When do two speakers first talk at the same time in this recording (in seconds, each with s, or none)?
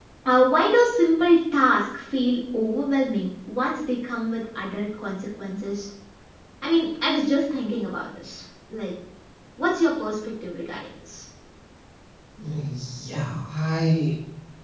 none